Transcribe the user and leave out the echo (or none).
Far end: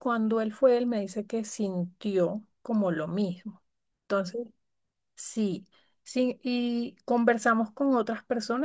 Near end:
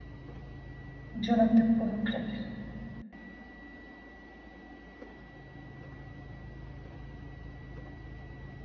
Yo no te puedo creer.